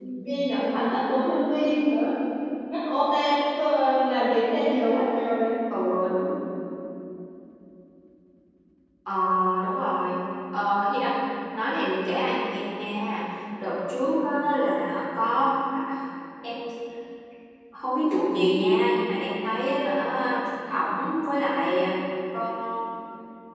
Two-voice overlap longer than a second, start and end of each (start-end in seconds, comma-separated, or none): none